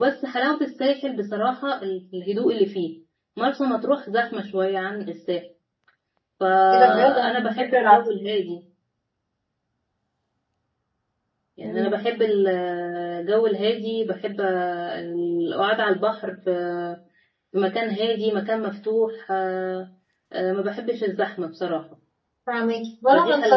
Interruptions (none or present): present